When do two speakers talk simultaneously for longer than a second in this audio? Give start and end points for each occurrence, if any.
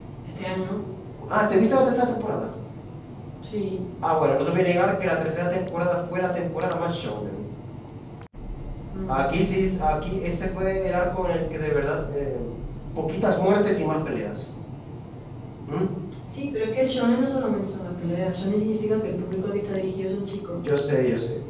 none

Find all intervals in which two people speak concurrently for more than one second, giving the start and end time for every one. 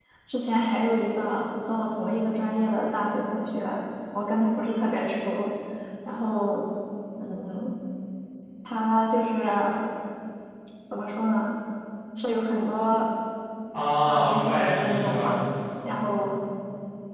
14.1-15.4

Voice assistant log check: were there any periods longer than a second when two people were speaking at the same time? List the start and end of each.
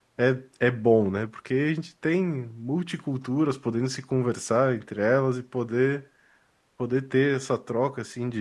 none

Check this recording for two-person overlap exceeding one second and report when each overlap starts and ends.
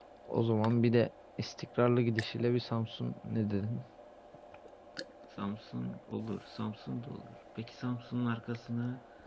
none

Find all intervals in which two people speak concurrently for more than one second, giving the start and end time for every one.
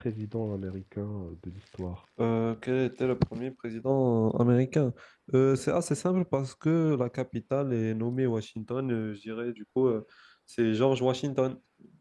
none

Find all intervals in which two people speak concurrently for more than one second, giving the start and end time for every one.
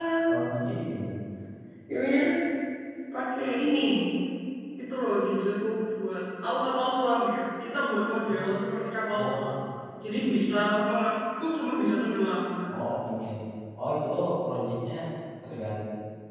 none

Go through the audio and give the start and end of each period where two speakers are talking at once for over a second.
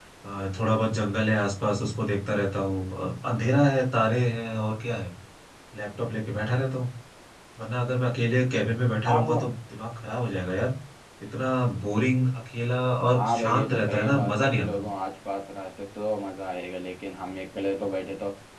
13.1-14.9

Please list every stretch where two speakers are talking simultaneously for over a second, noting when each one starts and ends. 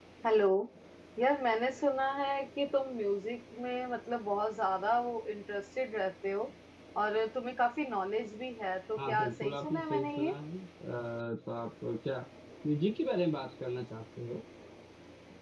9.0-10.3

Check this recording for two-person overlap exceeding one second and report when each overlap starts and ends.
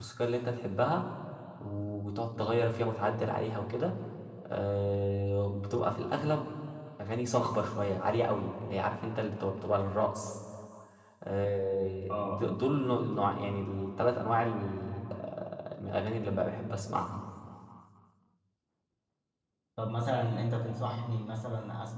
none

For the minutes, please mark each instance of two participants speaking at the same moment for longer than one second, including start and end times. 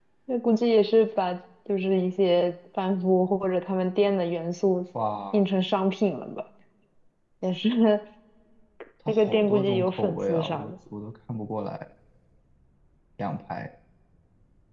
9.1-10.7

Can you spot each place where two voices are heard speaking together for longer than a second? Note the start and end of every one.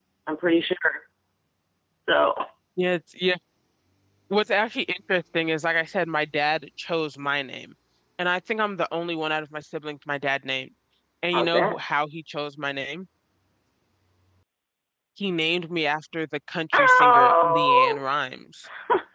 16.7-18.0

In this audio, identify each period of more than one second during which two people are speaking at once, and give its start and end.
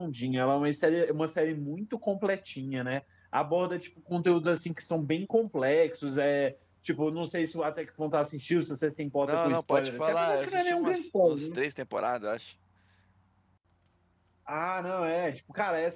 9.2-11.6

